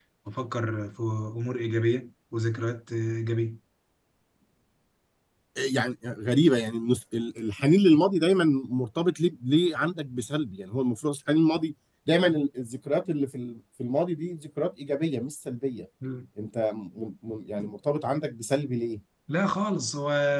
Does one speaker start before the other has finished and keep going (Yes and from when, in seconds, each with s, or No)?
No